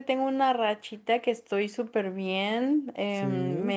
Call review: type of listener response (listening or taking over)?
listening